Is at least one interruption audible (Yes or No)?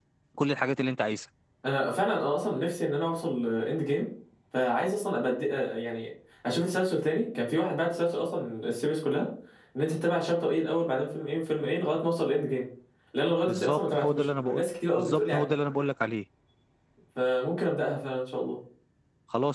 Yes